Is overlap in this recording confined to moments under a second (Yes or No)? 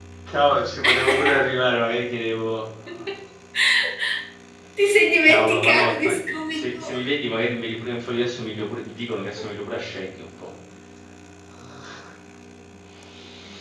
No